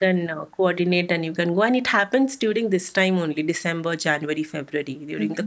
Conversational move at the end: taking over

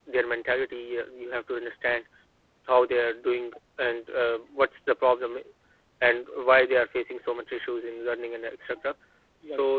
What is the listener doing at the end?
listening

